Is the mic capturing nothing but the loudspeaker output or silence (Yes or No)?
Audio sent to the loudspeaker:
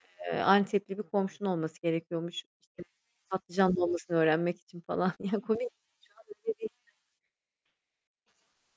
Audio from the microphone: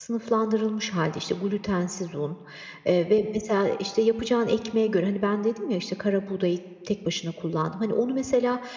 No